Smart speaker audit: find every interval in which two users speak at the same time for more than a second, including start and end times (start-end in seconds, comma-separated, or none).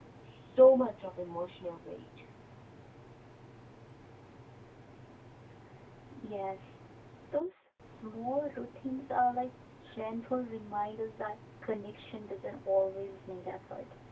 none